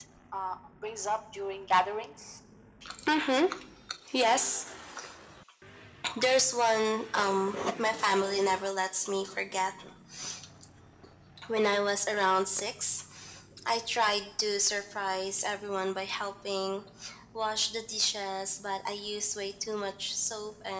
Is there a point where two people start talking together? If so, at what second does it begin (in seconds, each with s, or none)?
none